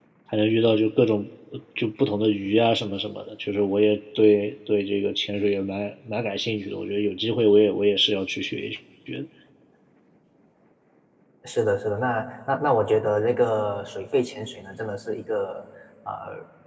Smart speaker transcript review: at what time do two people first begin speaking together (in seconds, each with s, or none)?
none